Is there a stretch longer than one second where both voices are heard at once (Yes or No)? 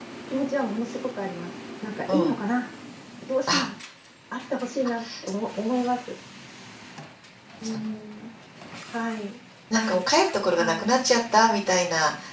No